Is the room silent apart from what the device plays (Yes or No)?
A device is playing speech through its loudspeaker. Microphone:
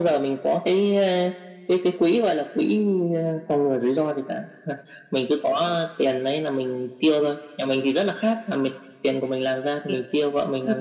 No